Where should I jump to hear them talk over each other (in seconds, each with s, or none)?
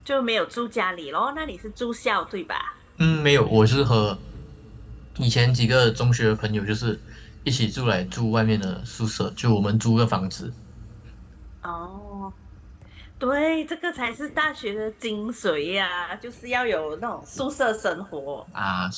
none